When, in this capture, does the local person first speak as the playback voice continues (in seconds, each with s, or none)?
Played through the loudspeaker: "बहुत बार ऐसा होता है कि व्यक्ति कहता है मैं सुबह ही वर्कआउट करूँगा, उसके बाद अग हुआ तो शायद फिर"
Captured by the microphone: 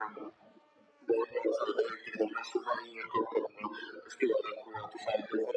none